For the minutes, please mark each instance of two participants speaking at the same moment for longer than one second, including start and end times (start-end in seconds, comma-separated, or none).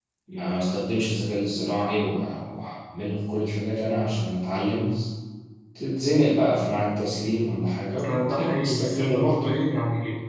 8.1-9.4